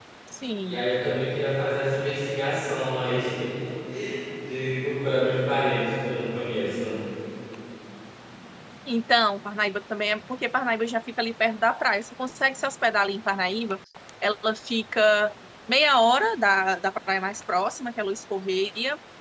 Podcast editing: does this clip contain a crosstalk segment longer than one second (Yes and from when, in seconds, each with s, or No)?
No